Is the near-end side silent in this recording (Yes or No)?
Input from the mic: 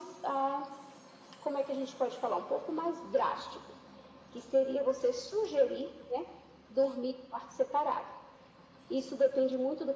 Yes